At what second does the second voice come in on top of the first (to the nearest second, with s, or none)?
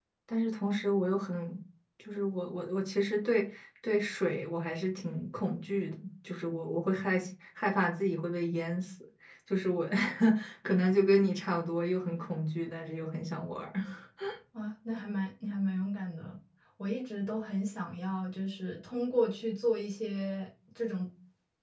none